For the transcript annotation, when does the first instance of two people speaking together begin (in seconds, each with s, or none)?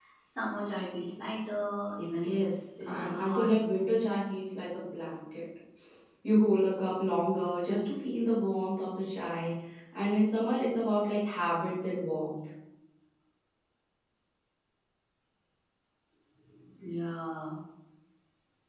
2.2 s